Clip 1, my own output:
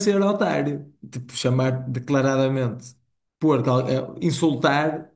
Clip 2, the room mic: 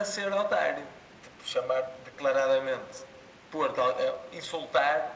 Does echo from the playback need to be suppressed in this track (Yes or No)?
Yes